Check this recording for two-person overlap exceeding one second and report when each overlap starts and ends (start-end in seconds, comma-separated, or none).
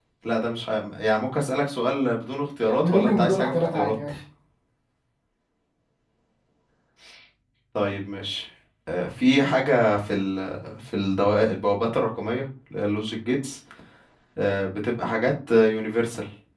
2.6-4.0